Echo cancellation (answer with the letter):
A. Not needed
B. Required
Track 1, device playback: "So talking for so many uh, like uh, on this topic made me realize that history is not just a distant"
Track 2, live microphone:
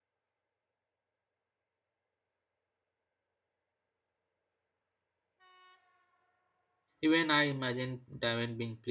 A